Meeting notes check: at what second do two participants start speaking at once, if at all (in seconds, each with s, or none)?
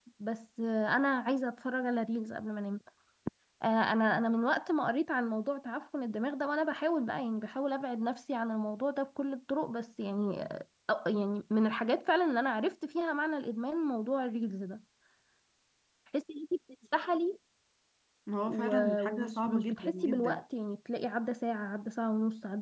18.4 s